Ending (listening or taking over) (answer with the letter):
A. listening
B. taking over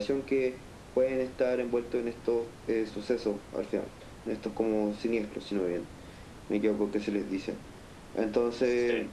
A